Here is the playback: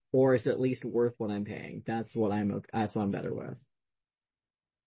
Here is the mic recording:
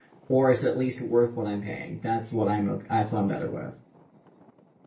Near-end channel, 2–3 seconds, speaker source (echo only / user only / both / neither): echo only